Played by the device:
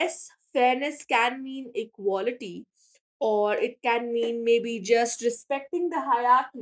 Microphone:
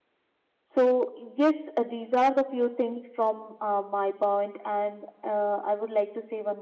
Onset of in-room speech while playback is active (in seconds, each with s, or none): 0.6 s